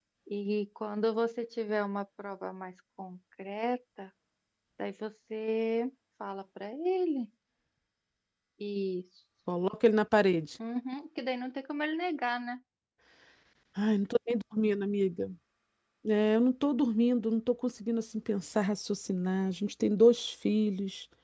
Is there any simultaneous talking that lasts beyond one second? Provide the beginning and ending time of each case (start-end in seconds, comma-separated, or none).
none